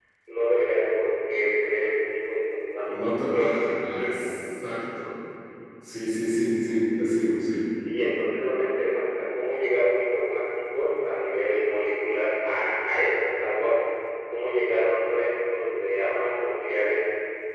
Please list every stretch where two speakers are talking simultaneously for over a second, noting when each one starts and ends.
2.9-4.3

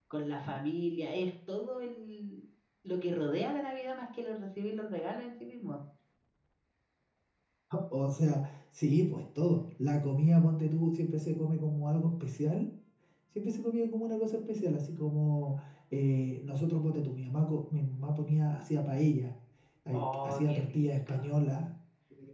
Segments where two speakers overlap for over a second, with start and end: 19.9-21.1

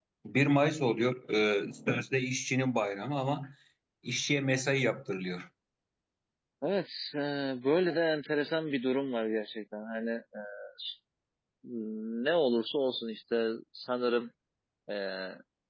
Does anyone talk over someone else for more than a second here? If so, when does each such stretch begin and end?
none

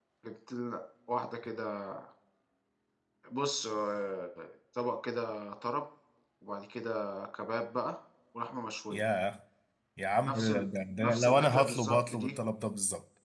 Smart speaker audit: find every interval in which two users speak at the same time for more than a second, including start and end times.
11.0-12.4

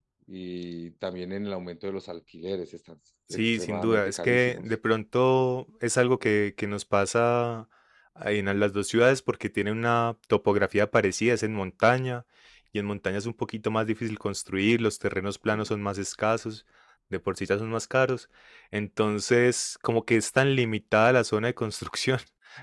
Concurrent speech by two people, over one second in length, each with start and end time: 3.3-4.6

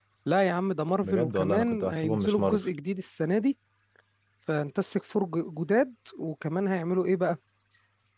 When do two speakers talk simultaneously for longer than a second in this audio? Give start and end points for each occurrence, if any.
1.0-2.6

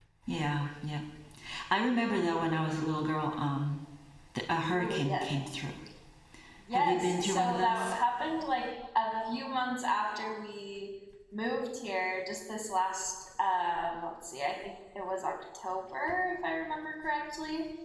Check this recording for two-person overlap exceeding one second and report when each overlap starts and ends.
6.7-8.0

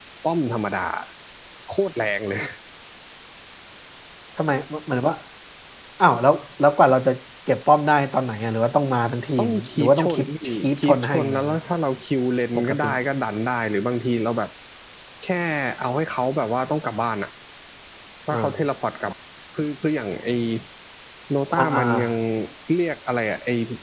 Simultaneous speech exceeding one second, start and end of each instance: 9.4-11.6

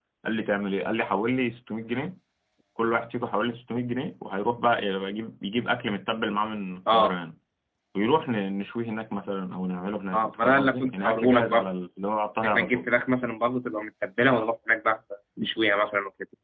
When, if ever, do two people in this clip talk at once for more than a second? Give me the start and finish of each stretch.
10.1-11.7

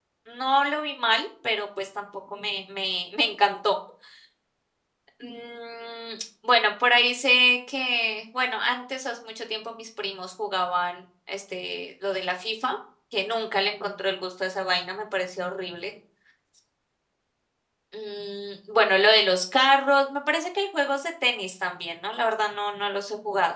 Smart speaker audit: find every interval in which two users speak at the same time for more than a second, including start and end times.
none

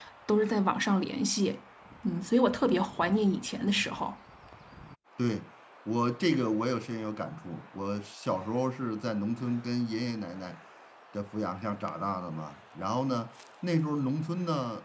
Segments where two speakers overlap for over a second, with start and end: none

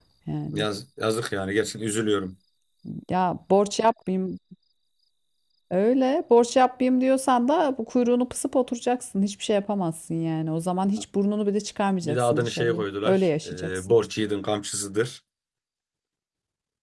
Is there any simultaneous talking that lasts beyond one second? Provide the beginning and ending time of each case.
12.0-13.9

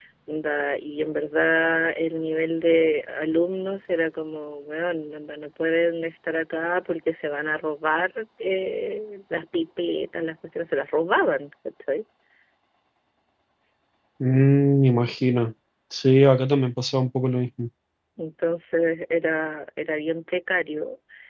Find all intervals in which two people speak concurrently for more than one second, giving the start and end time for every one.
none

